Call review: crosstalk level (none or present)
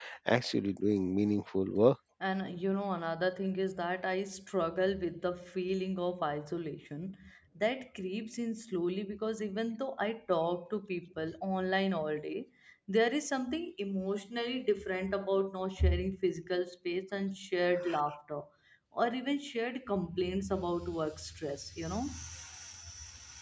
none